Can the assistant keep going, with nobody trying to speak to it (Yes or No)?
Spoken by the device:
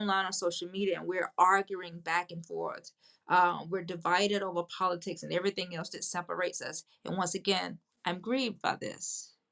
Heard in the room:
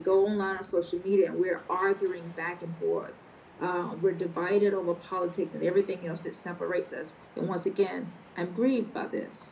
Yes